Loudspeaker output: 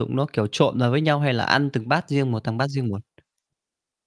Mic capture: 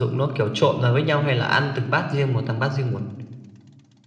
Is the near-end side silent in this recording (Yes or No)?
Yes